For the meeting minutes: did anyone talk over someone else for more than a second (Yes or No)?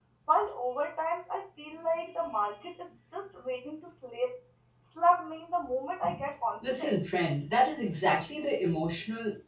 No